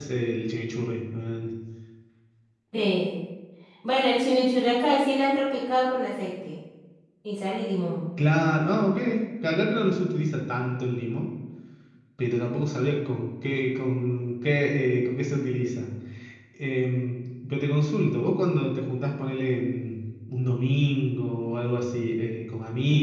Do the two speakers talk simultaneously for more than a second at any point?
No

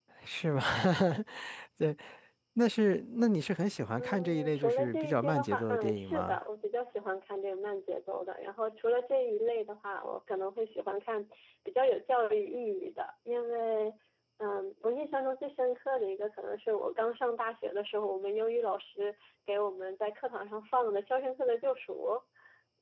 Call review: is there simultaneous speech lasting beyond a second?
Yes, from 4.0 s

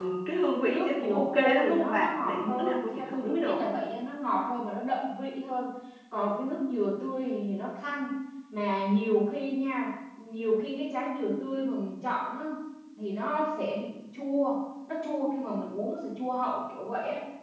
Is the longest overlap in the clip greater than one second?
Yes, from 0.7 s

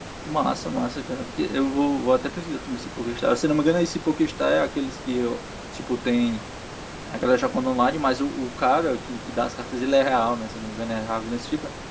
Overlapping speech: No

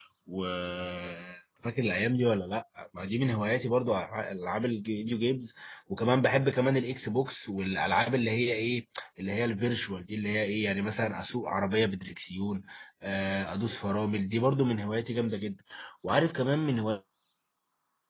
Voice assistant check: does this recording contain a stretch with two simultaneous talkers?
No

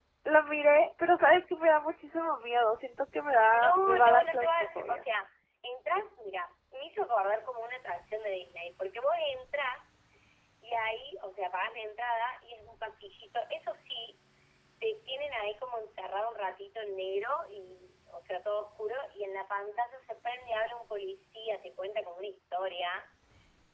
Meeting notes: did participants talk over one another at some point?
Yes, from 3.5 s

